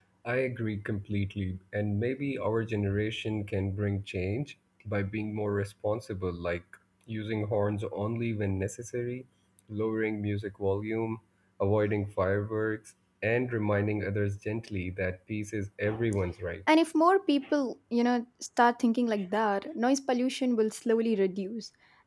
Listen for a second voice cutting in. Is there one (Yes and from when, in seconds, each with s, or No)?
No